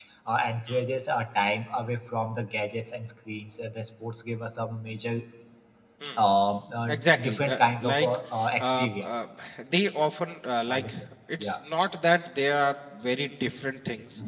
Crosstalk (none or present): present